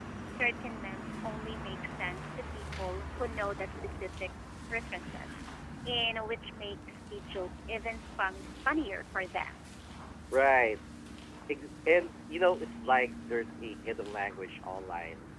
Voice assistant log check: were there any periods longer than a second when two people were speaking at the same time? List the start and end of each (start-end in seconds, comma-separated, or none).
none